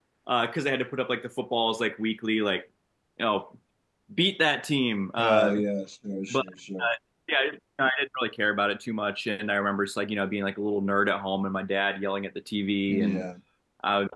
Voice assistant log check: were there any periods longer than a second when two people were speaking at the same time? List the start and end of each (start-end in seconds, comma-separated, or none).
none